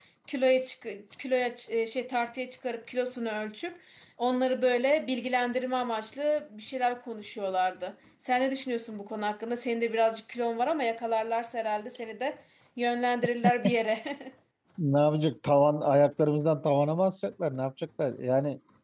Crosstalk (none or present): none